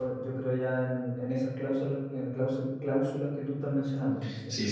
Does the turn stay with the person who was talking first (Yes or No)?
No